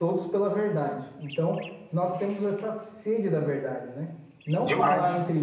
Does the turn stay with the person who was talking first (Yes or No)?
Yes